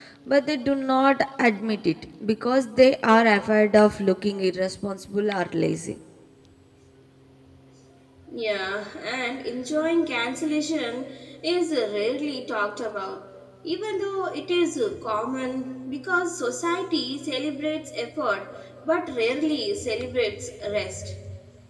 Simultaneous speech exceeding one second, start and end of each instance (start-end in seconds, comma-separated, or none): none